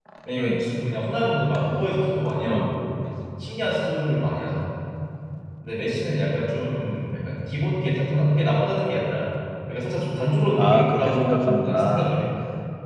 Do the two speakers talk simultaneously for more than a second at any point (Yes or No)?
Yes